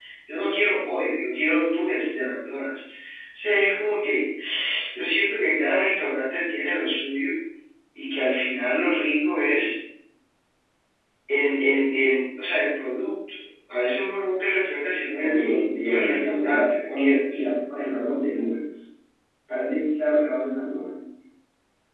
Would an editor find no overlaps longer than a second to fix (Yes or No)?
No